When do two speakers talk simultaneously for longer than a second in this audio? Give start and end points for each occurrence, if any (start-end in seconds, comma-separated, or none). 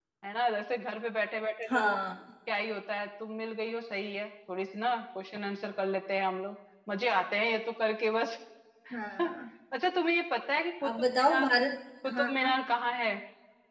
none